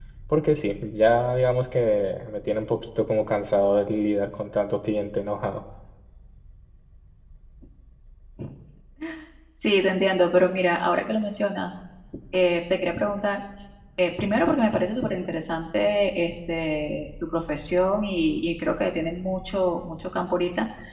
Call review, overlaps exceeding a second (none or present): none